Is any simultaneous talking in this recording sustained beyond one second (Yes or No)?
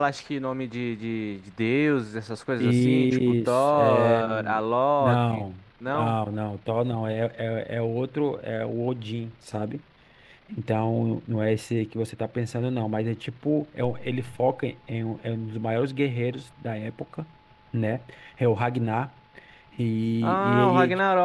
Yes